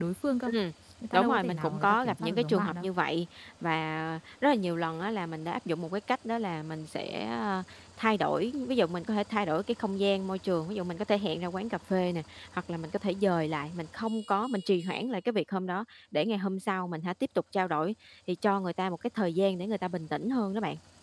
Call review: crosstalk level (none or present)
present